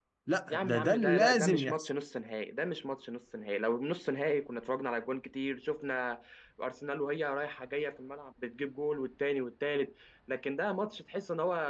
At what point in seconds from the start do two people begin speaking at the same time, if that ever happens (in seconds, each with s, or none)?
0.5 s